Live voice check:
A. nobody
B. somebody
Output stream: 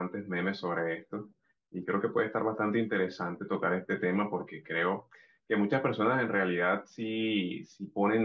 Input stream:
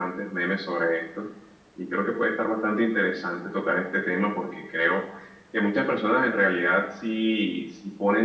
A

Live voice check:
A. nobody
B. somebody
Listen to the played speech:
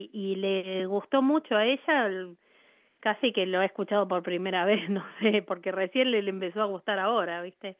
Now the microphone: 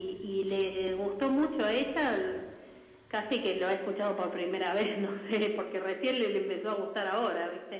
A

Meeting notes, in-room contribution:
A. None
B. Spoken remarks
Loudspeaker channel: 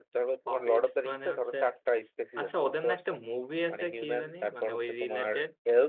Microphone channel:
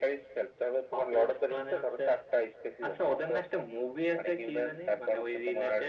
A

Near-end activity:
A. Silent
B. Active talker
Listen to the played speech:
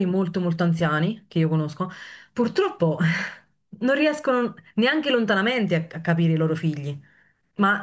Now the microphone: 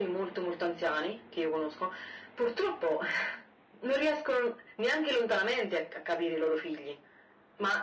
A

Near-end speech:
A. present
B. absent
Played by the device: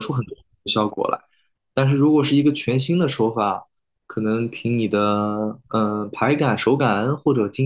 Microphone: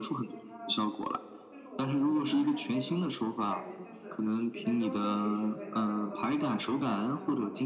A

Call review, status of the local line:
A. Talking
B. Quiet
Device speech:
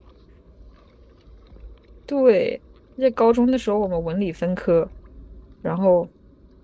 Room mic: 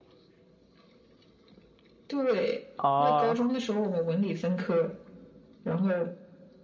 A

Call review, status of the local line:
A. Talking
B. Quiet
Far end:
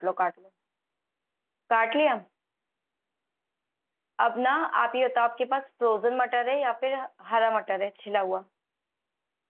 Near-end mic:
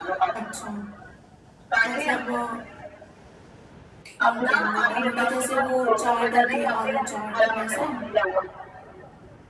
A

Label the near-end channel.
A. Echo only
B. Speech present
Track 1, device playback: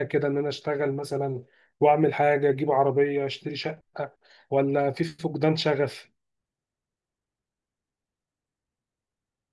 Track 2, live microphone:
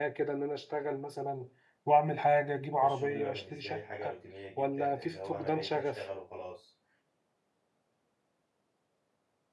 B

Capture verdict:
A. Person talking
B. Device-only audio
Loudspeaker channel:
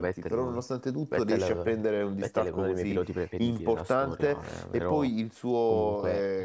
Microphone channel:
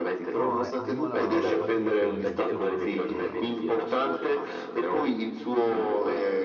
A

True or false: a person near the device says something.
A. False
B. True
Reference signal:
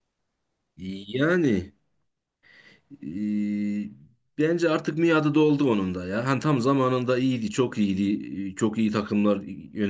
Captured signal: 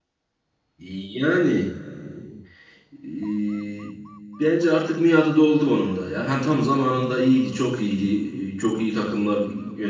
A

